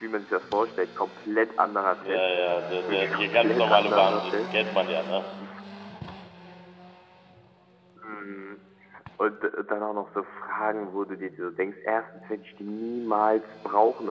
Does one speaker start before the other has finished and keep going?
Yes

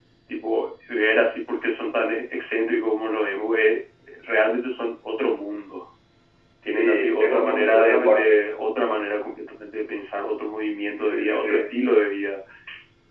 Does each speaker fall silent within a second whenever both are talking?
No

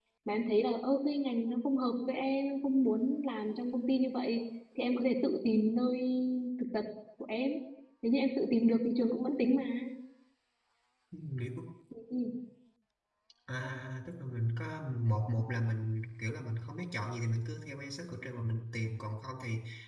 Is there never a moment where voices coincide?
Yes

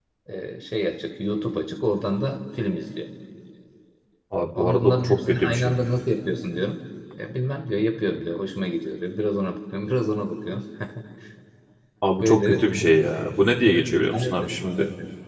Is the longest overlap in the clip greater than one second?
Yes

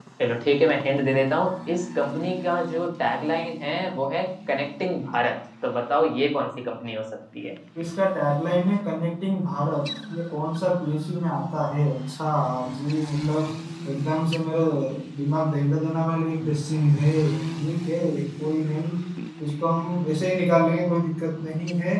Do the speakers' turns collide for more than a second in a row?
No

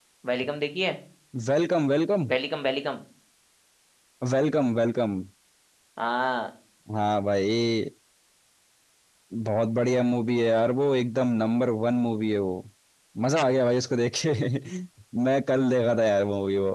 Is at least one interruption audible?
No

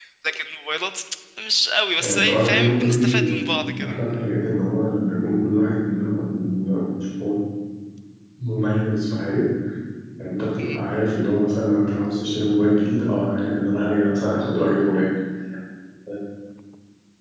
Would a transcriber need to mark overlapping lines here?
Yes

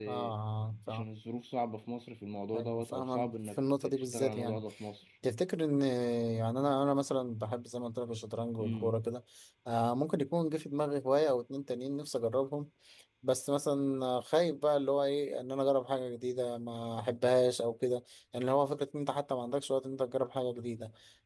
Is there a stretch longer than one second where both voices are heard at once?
Yes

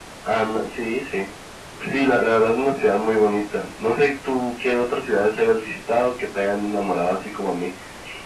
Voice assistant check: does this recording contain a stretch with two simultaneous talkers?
No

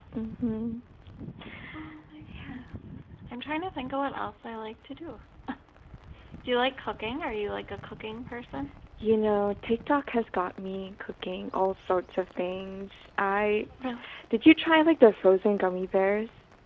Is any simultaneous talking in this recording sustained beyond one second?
No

